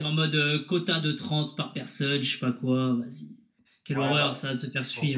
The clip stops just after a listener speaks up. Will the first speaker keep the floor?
No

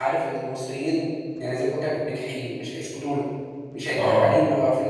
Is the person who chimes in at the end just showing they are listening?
Yes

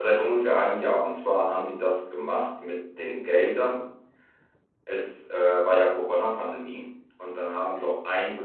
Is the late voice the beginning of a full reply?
No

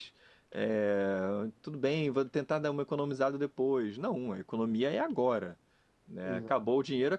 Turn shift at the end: No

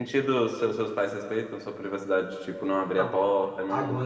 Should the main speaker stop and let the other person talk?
Yes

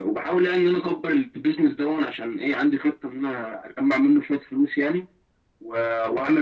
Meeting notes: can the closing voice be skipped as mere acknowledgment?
Yes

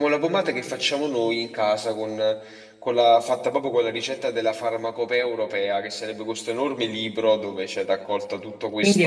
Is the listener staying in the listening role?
No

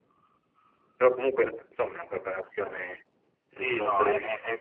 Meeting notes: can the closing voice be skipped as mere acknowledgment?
No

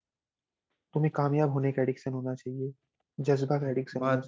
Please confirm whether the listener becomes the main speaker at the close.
Yes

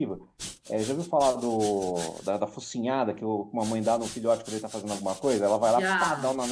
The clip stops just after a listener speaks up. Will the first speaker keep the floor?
Yes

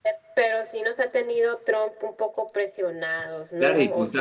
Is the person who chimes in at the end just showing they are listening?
No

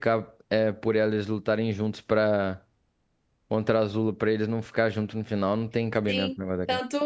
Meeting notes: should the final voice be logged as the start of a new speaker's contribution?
Yes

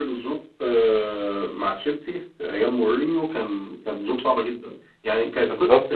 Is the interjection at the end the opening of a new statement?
No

